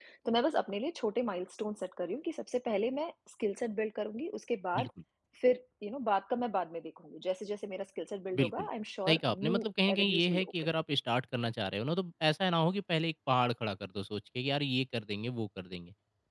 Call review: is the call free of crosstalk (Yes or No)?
No